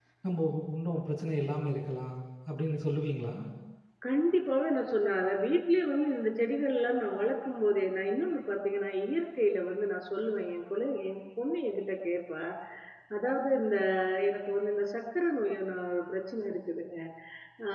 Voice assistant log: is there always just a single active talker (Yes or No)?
Yes